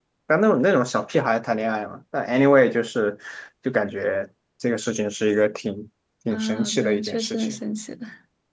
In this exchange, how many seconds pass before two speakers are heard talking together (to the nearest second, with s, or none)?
6 s